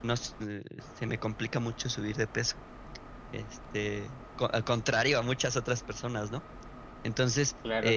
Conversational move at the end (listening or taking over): taking over